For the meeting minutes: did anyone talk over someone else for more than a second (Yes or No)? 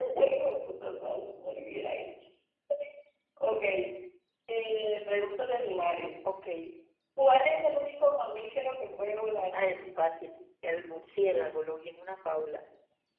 No